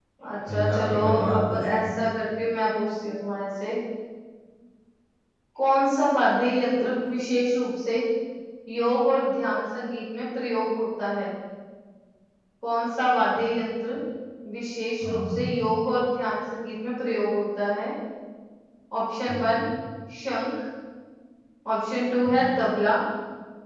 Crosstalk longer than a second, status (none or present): present